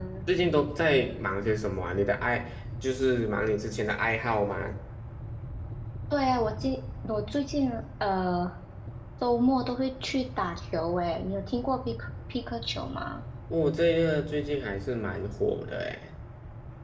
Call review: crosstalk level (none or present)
none